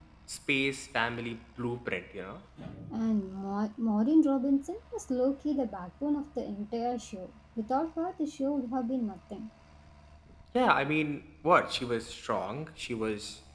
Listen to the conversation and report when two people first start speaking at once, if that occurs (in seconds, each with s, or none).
none